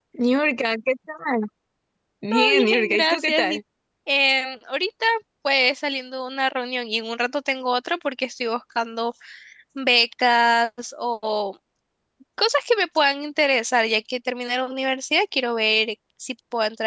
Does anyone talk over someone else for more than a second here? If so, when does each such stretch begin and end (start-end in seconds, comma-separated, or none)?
2.3-3.6